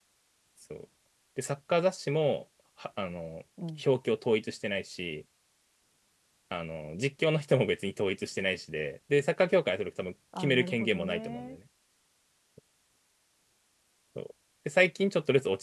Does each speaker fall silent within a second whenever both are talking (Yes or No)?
No